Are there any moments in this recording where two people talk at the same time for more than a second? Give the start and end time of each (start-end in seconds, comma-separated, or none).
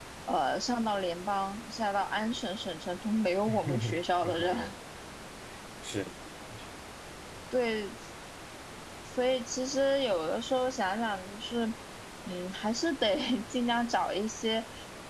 3.5-4.7